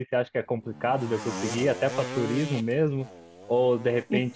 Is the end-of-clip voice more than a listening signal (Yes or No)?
No